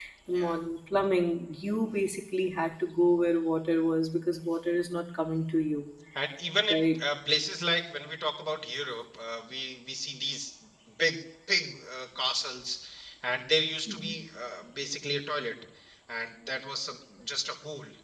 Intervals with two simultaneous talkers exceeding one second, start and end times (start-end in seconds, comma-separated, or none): none